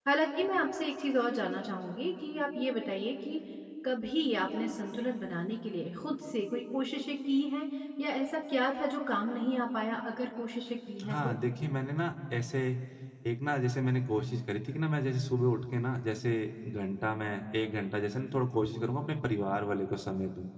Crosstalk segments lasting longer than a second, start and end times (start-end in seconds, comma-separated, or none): none